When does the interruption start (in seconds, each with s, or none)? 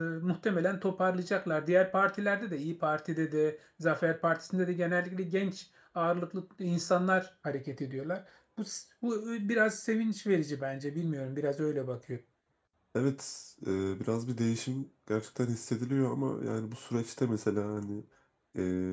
none